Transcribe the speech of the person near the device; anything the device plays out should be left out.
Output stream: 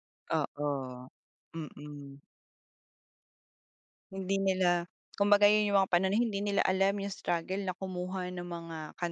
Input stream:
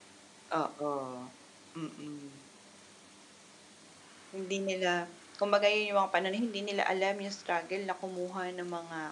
none

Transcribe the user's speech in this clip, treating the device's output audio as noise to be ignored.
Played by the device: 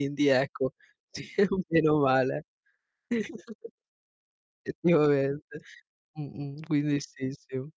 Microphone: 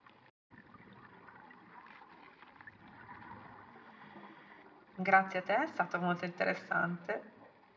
Grazie a te, è stato molto interessante.

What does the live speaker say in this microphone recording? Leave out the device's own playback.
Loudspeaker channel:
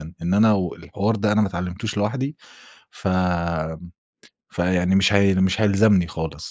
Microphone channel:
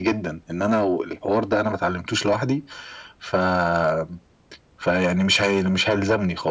none

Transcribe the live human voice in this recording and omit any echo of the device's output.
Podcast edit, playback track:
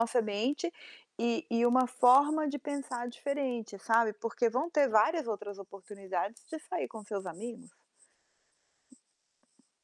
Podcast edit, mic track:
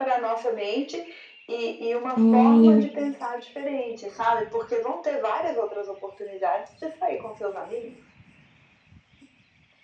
Olha.

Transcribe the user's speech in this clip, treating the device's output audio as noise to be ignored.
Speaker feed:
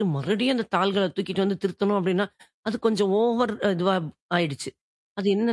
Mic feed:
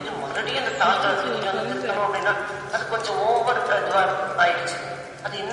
அச்சச்சோ! கொழந்த.

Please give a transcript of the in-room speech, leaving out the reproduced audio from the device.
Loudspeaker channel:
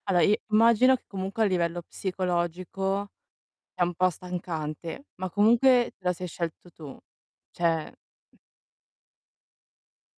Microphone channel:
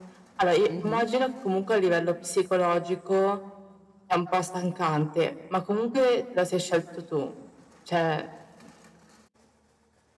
Mh-mh.

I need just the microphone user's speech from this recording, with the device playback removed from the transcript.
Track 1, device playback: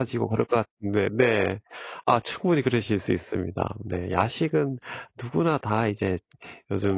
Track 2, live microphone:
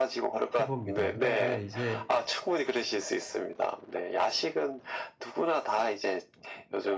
해봅니다. 그런데 이제

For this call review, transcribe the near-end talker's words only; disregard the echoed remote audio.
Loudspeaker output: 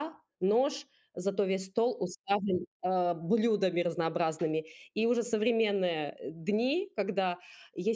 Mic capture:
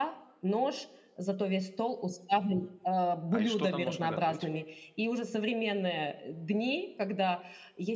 А, и что там можно готовить в ней?

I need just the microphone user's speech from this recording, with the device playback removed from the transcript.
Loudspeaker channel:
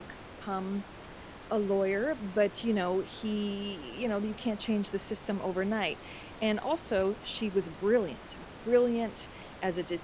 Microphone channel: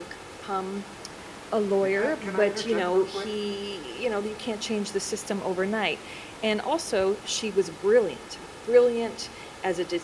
Hey, can I can I interject real quick?

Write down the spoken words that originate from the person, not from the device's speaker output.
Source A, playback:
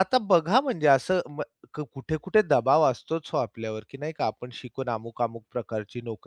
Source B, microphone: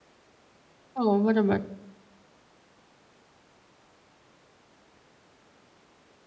हो, बरोबर.

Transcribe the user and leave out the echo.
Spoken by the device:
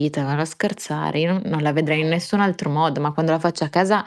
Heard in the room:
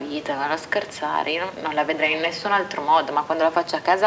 none

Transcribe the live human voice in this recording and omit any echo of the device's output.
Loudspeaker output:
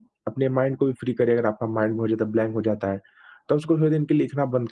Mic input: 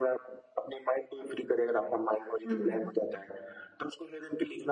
हुँ।

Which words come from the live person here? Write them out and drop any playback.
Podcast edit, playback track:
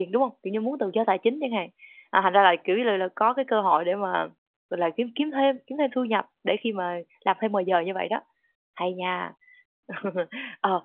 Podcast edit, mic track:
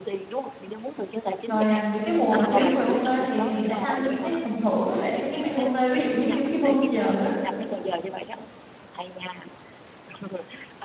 Rồi, à, những cái mùa mà thiếu người OT thì thì sẽ tăng những cái phần thưởng á để cho các bạn OT, ví dụ giống như mấy cái voucher á,

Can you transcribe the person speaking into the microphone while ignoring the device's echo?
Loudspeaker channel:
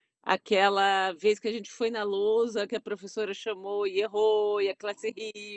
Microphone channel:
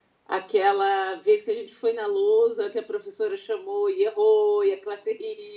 none

